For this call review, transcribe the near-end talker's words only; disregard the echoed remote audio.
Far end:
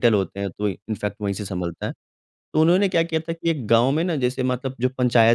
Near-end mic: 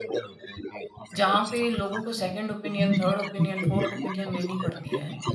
जहाँ पे लोगों को सेकंड ओपिनियन, थर्ड ओपिनियन, फोर्थ ओपिनियन लेनी पड़ती है।

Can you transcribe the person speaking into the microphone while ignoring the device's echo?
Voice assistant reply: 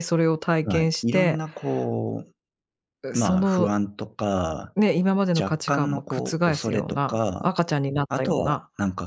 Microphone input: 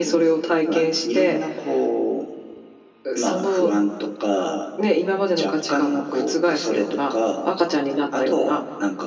none

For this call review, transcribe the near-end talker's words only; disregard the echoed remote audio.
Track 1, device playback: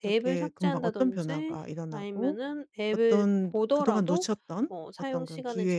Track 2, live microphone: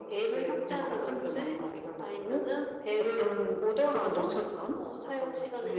none

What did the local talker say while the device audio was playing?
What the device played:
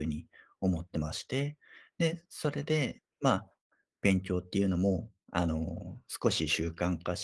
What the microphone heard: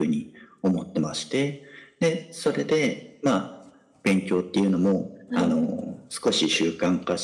はい。

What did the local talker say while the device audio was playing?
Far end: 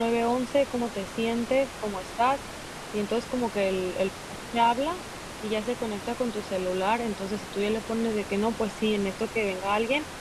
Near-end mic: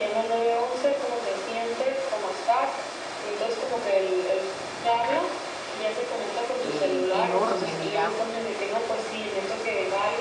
eh, enorme, digamos,

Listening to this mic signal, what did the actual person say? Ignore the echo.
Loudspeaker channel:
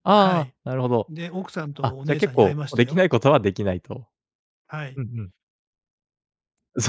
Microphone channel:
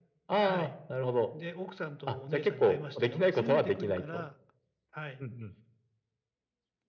責めてくるから

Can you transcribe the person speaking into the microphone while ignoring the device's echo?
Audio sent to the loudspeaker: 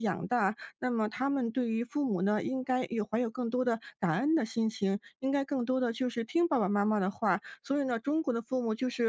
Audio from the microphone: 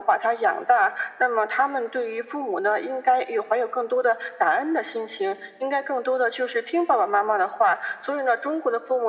none

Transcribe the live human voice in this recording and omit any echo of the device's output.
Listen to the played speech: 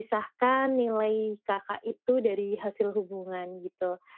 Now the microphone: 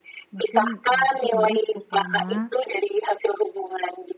mungkin, eee, aku sama dia cukup lama

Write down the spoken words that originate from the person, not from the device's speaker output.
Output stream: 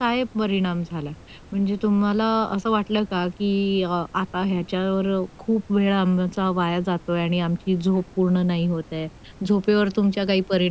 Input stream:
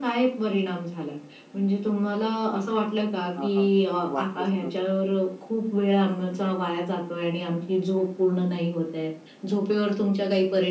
हां, हां. वाटलंच नव्हतं

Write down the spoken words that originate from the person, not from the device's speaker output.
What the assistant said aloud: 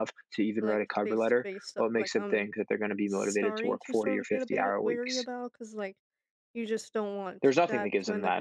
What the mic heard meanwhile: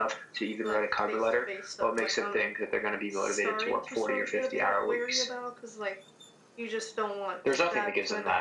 none

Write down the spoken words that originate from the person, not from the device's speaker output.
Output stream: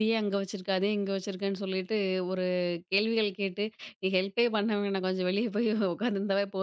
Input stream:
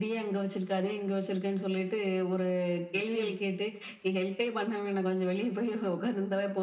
நிச்சயமா.

